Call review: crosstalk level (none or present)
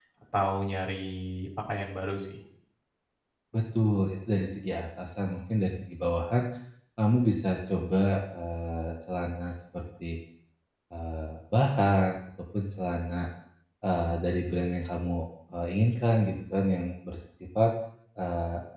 none